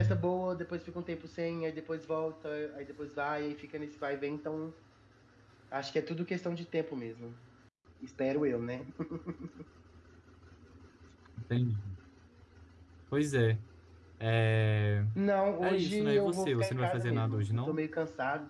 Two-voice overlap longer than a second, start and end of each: 15.6-17.8

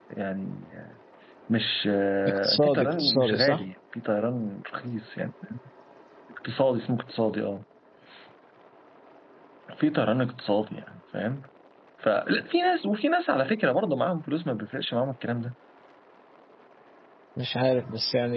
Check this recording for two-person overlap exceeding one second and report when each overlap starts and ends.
2.3-3.6

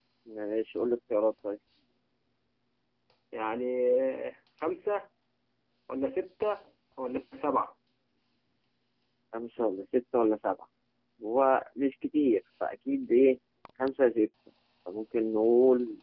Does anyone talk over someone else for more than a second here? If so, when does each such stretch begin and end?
none

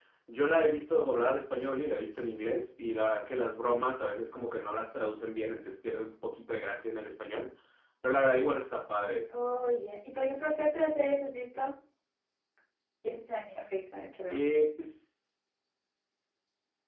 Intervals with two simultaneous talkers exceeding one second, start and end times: none

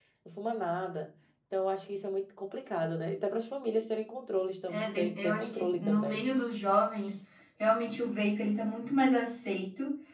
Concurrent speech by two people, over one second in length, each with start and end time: 4.7-6.2

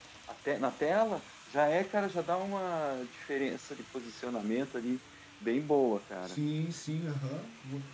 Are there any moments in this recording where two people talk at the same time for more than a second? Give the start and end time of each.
none

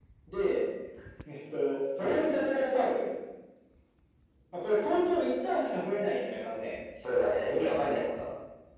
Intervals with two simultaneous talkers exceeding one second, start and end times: none

